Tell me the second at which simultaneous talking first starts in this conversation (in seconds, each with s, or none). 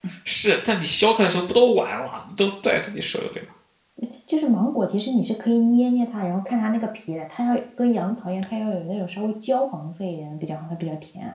none